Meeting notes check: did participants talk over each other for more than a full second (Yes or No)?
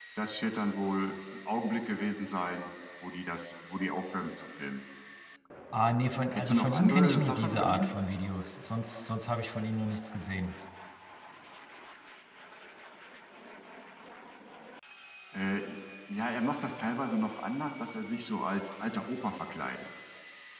Yes